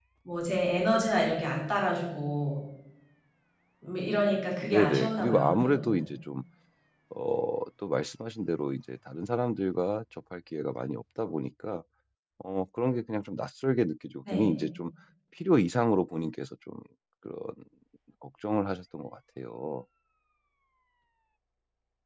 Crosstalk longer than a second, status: present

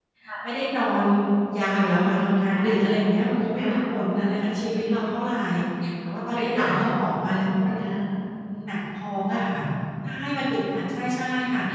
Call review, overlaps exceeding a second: none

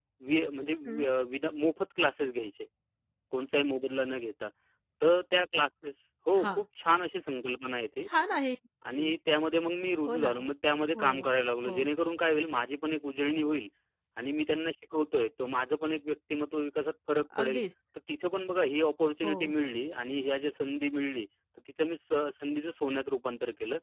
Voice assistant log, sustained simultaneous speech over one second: none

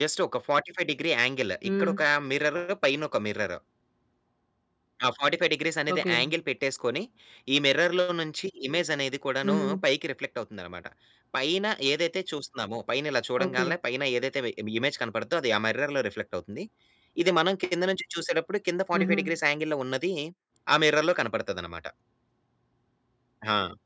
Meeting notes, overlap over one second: none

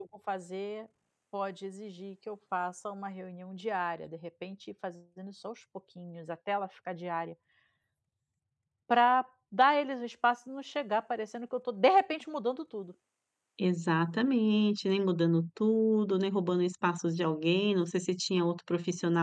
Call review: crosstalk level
none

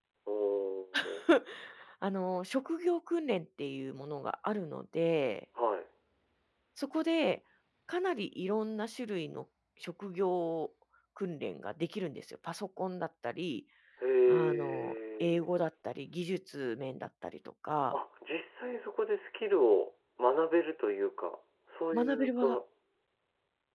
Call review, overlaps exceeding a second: present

